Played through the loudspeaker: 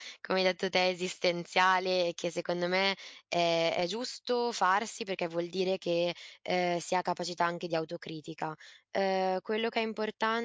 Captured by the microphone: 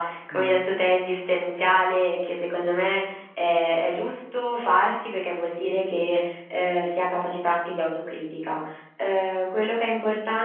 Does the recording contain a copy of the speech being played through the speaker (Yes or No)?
Yes